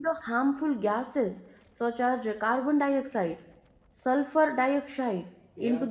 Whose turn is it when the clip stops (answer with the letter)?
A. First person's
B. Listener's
A